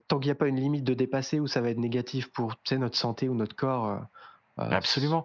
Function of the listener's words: taking over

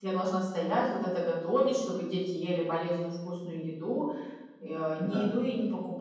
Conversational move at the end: listening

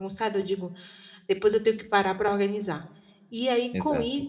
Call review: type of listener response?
listening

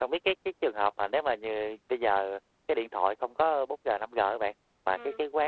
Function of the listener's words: listening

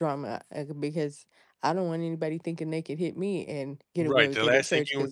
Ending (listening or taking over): taking over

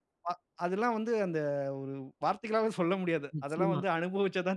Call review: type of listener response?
listening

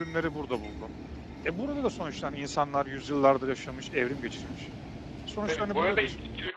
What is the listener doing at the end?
taking over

